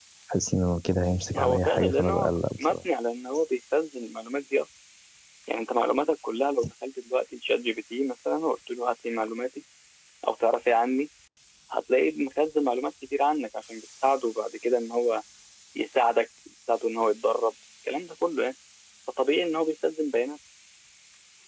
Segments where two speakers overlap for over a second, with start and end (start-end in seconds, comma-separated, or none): 1.3-2.8